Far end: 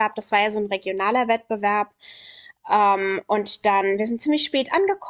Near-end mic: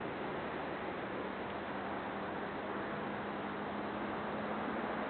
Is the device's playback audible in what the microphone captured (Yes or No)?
No